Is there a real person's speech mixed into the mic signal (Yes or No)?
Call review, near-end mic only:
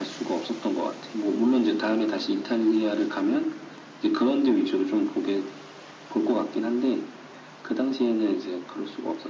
No